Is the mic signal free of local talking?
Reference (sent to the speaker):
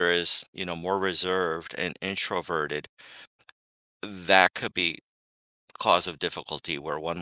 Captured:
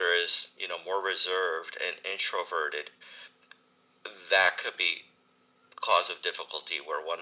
Yes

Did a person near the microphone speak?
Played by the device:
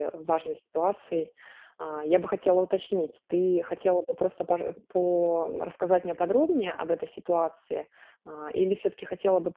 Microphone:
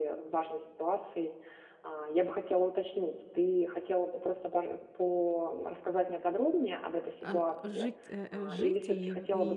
Yes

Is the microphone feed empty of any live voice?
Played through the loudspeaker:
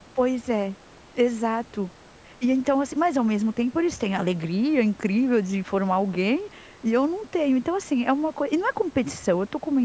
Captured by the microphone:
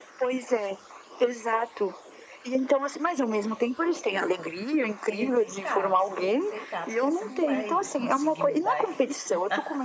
No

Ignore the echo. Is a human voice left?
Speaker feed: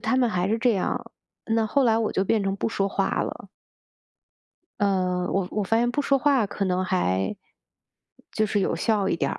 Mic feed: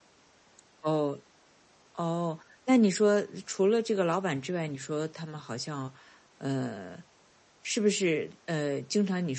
Yes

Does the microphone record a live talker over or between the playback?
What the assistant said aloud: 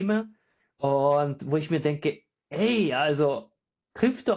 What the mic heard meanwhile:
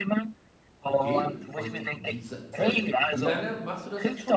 Yes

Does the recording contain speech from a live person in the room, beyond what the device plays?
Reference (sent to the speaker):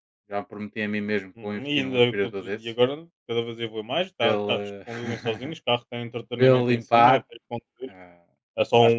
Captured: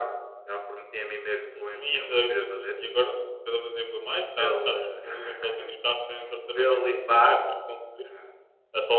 No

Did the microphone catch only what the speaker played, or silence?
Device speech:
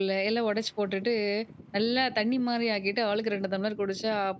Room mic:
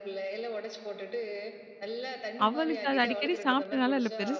No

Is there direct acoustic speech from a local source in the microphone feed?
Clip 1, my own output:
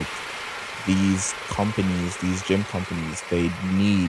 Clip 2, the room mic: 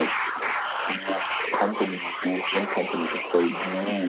No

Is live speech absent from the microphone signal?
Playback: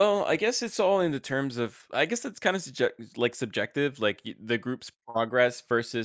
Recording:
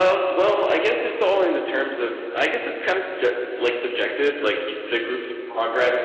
Yes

